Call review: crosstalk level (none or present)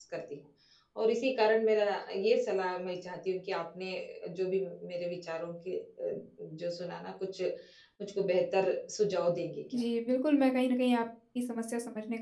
none